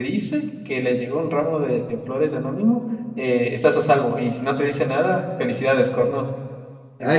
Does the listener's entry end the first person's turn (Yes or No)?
Yes